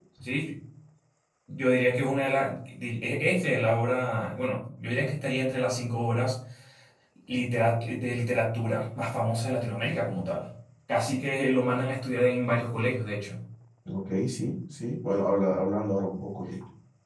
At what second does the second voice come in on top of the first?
none

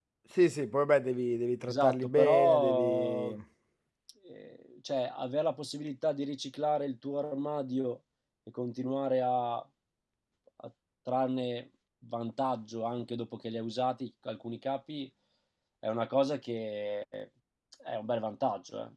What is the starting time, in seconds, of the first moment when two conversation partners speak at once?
1.7 s

